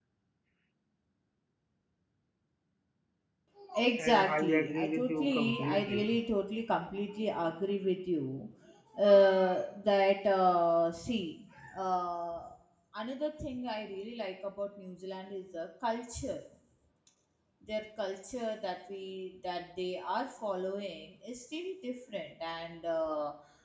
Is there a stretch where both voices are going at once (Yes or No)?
Yes